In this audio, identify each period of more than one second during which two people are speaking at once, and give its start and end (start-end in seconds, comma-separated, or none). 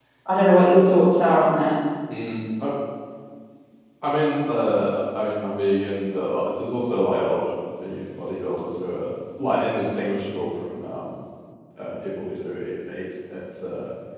none